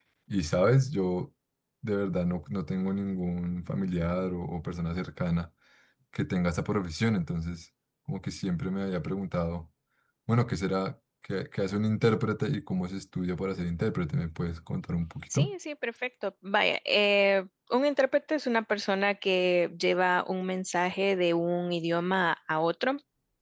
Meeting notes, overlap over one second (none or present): none